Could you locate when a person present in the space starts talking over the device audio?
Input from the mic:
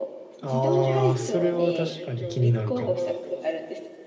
0.4 s

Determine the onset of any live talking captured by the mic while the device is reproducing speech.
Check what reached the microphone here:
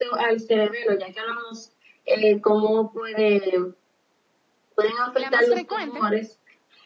5.2 s

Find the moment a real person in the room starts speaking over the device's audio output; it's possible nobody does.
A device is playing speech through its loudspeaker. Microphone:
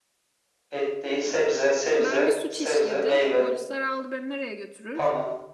2.0 s

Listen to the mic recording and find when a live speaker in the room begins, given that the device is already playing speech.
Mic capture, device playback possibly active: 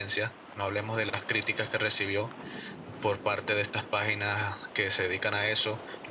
none

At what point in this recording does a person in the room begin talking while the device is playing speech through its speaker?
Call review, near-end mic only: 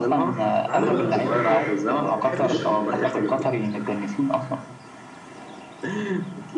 0.7 s

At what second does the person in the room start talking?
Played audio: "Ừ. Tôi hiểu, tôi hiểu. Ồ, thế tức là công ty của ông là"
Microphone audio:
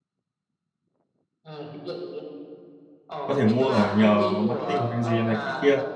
3.2 s

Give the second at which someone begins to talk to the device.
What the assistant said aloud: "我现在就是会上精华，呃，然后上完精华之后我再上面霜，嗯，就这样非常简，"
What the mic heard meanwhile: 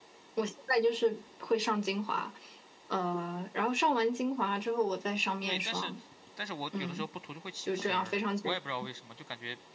5.4 s

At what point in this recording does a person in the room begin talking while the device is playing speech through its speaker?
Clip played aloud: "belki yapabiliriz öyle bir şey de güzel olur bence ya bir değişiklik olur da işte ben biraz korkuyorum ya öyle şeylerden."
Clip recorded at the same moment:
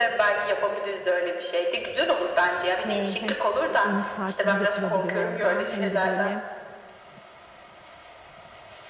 2.8 s

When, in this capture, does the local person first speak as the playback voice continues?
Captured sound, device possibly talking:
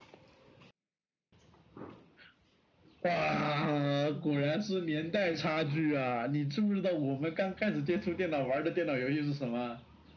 none

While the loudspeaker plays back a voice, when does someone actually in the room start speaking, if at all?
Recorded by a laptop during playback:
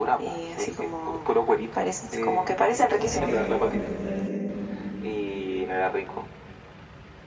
2.4 s

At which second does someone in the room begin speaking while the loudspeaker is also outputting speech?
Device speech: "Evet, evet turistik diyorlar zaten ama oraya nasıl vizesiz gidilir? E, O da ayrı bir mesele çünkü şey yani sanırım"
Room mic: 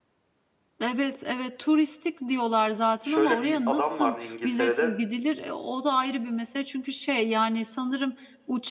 3.0 s

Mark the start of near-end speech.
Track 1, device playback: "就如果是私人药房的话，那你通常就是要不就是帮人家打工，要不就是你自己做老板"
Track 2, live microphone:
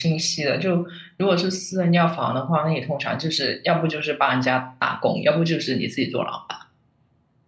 none

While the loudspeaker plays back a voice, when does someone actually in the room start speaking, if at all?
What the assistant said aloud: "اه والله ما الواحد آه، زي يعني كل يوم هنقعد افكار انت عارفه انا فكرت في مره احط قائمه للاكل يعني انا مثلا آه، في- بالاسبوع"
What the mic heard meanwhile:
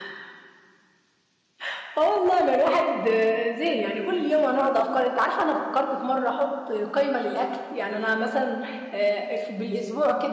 none

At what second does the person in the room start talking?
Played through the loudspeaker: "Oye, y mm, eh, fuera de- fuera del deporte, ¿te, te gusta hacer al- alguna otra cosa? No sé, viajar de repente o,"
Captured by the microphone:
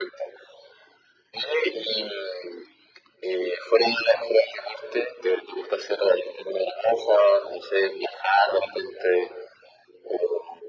none

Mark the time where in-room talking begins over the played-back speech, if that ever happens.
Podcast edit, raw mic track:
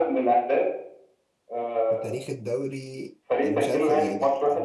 1.9 s

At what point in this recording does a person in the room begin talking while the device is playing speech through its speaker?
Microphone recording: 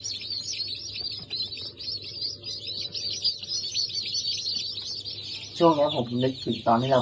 5.6 s

